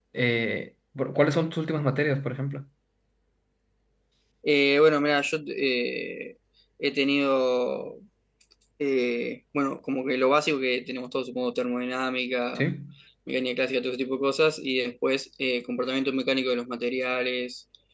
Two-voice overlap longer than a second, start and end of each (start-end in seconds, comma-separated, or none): none